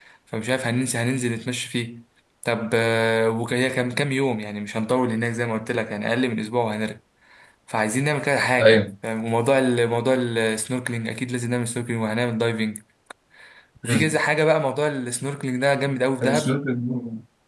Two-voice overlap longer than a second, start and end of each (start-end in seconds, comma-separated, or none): none